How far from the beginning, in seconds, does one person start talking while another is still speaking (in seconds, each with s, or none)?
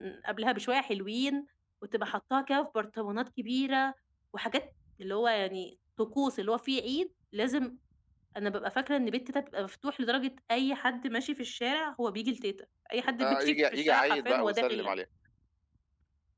13.2 s